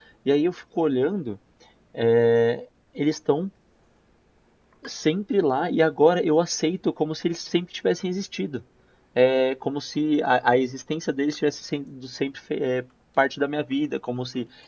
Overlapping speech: No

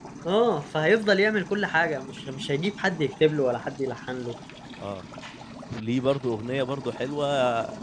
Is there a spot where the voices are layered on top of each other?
No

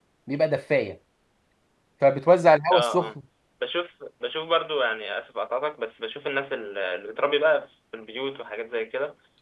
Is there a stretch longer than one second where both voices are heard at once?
No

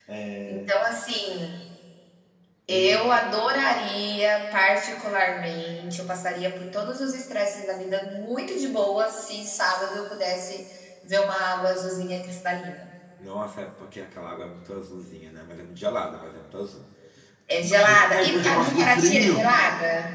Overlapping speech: Yes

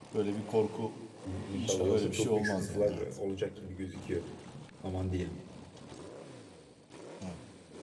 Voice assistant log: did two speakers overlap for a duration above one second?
Yes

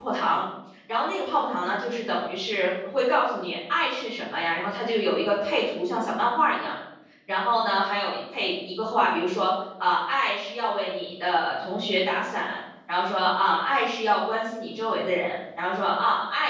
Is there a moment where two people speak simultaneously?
No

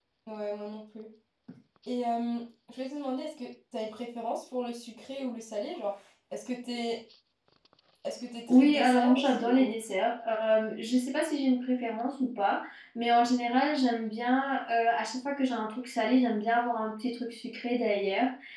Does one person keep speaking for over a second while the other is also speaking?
Yes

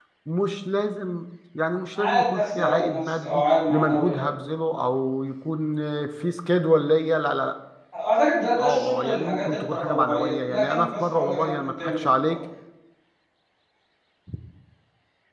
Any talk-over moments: Yes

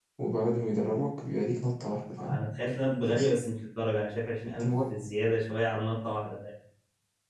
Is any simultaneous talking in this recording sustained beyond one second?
No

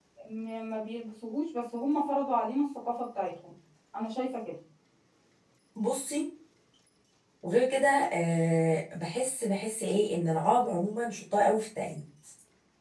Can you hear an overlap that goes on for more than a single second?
No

